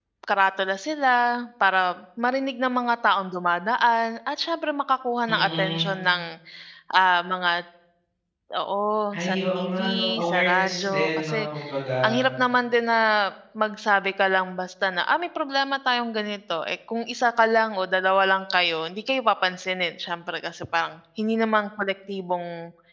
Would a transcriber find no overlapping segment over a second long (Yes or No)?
No